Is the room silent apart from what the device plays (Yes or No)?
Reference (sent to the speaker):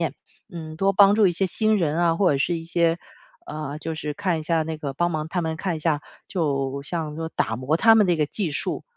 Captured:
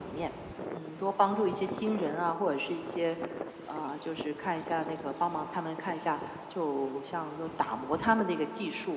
Yes